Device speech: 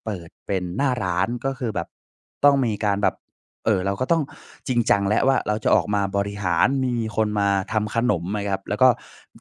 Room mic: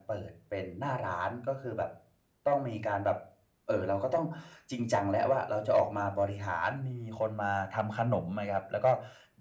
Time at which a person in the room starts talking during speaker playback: none

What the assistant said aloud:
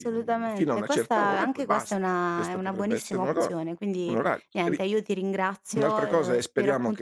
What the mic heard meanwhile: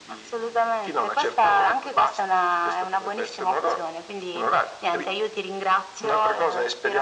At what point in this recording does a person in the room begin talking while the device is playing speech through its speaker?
none

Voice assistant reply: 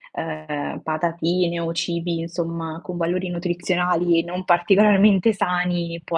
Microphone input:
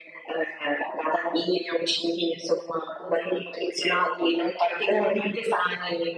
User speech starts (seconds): none

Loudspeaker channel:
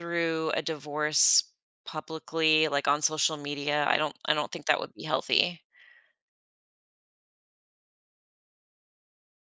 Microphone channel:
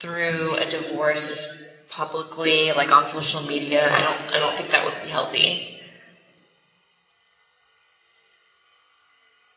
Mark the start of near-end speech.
none

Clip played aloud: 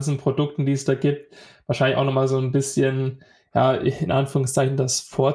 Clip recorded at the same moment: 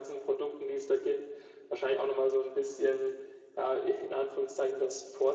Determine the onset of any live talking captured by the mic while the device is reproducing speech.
none

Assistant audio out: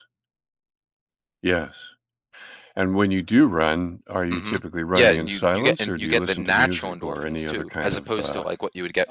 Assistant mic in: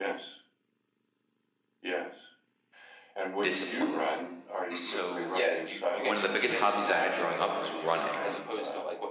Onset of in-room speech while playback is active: 3 s

